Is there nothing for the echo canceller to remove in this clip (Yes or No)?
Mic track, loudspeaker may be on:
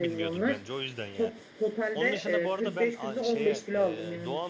No